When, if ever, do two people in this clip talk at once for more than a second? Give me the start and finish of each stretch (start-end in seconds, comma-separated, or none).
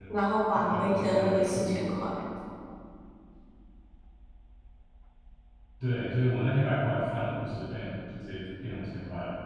0.6-1.8